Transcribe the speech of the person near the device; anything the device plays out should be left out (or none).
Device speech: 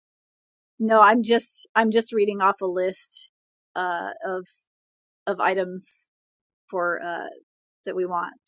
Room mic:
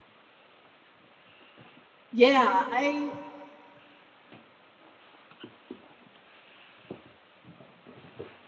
Yeah, I